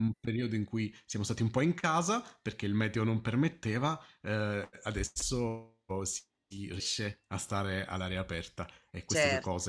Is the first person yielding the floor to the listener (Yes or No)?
No